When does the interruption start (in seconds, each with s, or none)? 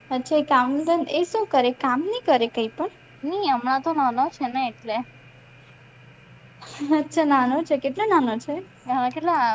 none